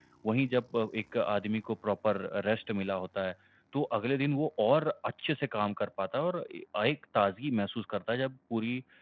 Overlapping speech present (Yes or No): No